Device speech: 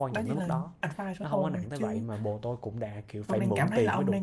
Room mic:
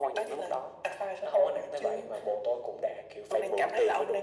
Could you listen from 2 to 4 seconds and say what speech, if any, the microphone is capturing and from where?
echo only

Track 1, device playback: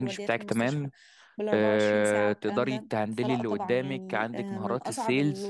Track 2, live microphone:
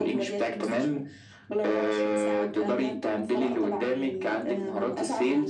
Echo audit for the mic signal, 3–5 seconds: echo only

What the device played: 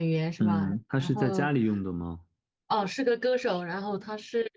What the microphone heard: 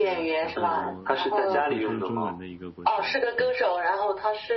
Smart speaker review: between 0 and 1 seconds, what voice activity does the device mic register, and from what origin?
both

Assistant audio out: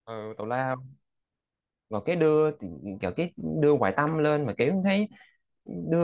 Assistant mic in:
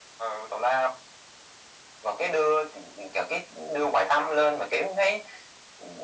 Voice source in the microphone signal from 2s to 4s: echo only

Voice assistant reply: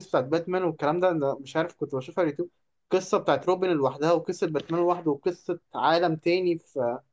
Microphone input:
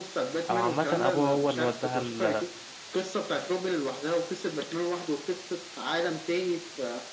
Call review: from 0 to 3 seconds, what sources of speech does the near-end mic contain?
both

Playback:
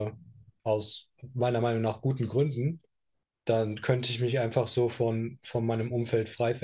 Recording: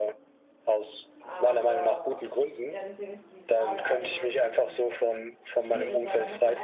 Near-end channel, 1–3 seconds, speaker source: both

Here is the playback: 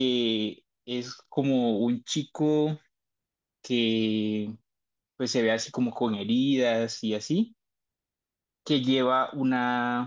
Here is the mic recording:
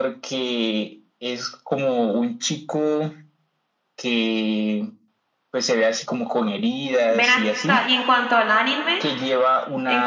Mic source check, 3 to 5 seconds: echo only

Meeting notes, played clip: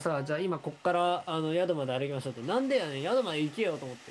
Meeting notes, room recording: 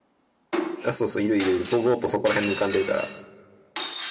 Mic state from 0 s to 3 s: user only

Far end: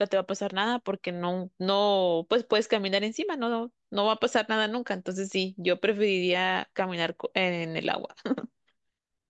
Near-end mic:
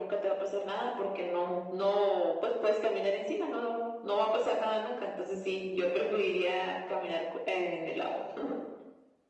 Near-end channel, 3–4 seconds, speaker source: echo only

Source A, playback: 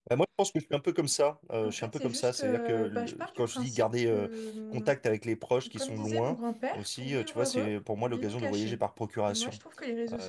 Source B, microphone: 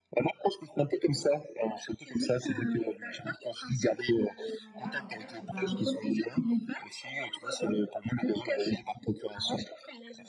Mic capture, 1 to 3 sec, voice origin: echo only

